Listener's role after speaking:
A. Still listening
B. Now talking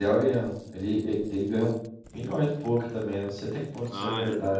B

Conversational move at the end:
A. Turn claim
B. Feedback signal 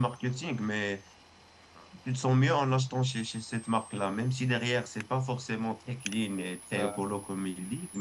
B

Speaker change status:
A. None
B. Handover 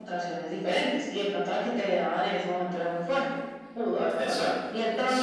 B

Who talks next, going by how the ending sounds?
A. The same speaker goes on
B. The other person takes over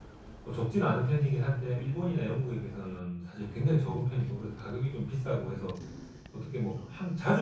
A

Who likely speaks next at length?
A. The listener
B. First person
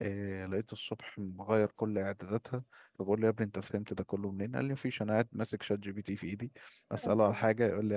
B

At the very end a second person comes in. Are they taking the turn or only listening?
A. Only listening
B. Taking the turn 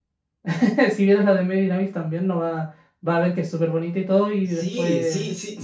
B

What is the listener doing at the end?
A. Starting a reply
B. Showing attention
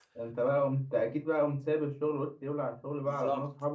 A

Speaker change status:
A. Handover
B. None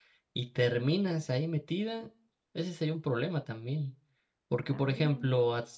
B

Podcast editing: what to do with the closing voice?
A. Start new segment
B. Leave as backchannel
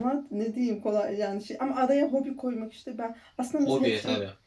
B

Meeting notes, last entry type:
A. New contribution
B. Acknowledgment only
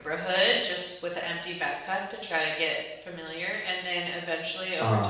B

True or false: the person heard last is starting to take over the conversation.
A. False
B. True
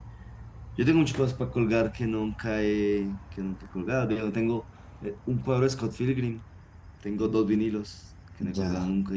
B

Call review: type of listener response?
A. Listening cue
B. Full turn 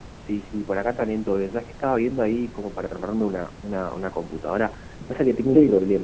A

